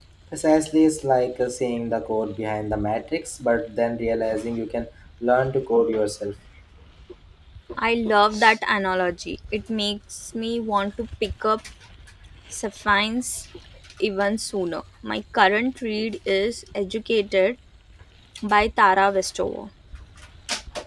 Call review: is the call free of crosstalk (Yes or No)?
Yes